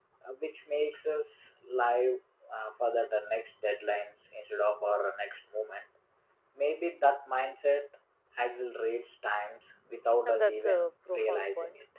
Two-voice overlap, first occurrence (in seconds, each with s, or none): 10.2 s